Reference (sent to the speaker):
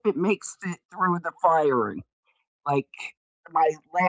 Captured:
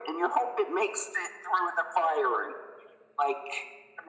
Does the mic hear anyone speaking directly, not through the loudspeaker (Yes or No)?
No